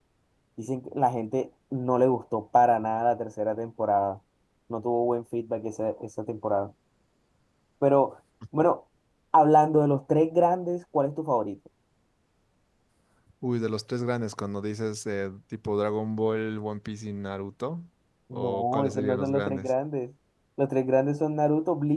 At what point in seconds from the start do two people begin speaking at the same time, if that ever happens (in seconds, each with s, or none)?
18.3 s